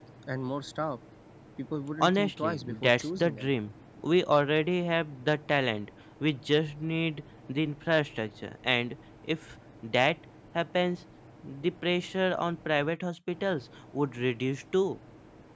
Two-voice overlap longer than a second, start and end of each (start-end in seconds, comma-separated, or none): 2.0-3.5